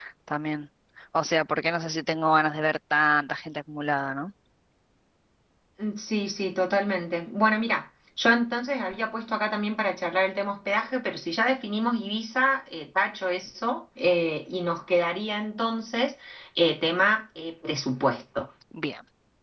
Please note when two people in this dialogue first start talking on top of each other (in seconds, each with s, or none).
none